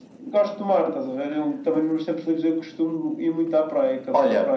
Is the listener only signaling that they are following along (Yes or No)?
No